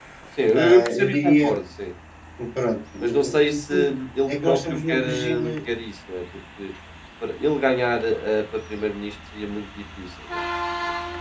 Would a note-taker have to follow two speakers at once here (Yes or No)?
Yes